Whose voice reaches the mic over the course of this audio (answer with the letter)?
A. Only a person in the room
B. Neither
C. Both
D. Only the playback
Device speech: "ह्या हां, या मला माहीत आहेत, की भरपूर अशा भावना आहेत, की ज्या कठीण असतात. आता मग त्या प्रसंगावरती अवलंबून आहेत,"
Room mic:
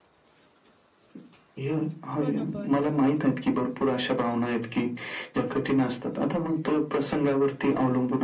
C